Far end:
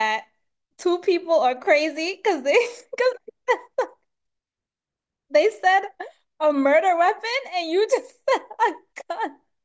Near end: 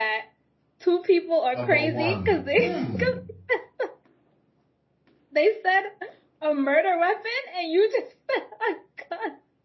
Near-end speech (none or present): present